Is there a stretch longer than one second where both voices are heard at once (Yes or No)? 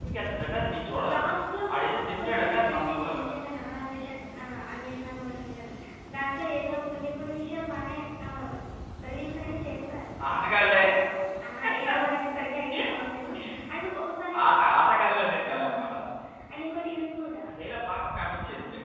Yes